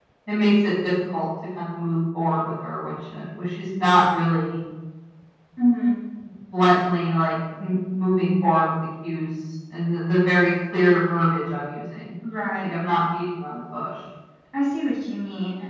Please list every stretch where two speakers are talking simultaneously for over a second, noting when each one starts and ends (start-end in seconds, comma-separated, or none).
none